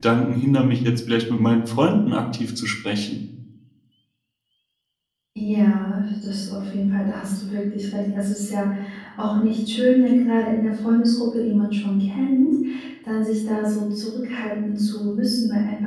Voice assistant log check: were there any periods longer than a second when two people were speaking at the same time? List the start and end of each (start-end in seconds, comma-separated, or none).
none